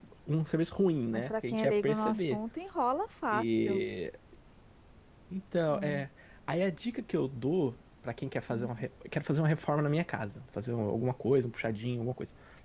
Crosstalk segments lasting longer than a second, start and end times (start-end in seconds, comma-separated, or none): 1.1-2.4